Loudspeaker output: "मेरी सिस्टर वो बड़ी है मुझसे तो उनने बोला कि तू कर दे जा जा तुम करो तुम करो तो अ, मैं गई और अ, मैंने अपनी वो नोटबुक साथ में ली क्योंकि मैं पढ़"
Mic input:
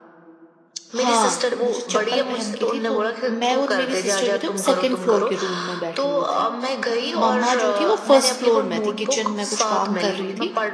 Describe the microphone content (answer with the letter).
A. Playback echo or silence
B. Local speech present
B